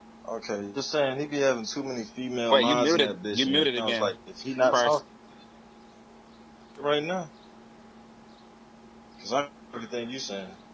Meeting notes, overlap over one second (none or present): present